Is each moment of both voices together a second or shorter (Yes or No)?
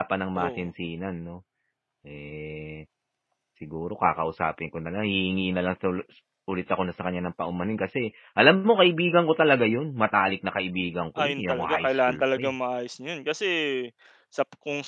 No